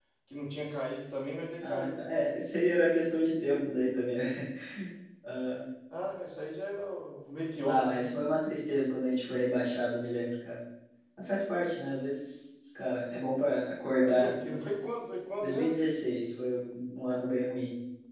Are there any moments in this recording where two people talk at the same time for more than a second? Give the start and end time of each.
none

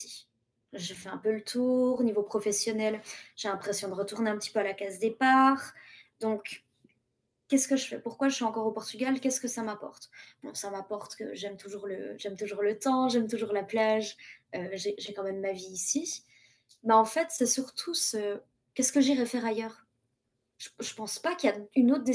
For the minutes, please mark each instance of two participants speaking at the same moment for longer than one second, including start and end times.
none

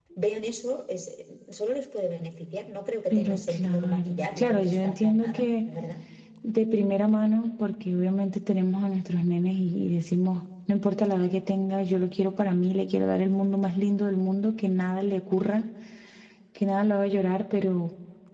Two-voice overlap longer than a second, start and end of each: 3.1-5.7

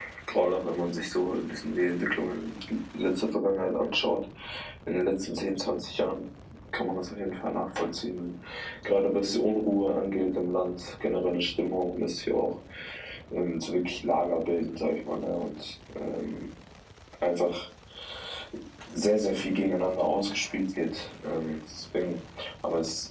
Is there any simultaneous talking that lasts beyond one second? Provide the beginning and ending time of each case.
none

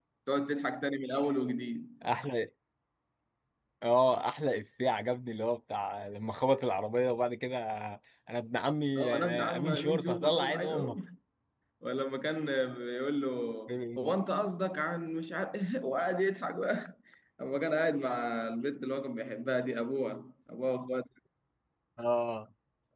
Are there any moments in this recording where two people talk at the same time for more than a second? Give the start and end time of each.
9.0-11.0

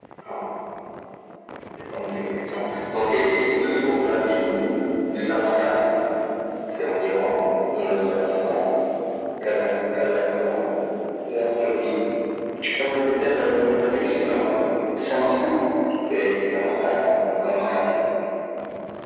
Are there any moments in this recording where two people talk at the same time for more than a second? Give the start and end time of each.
none

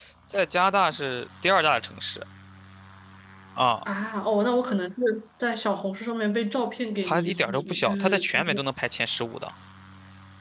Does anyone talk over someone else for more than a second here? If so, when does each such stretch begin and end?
7.0-8.5

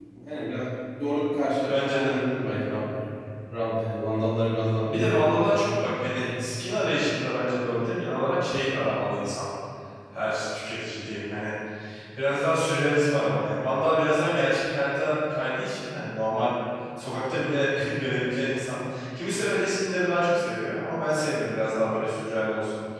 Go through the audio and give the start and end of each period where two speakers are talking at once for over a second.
none

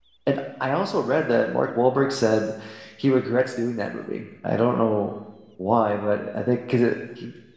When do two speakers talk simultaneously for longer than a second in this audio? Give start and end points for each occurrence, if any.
none

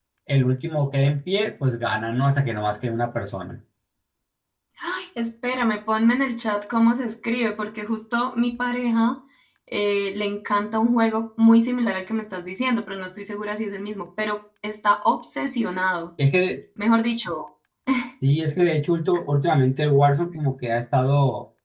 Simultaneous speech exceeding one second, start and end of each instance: none

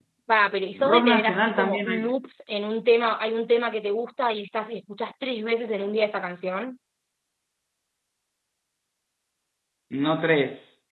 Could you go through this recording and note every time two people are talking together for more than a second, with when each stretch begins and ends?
0.8-2.1

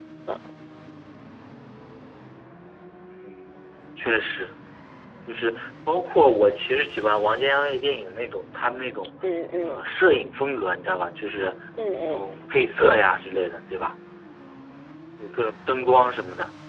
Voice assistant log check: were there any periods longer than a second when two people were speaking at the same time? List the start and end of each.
none

